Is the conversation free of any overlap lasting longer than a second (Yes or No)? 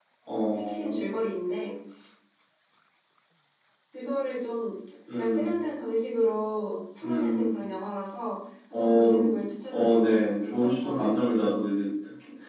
No